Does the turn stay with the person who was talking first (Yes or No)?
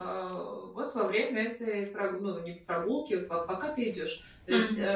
Yes